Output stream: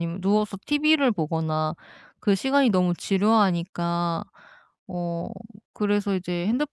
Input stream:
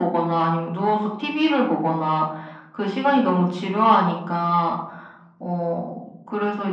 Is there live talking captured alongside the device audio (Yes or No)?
No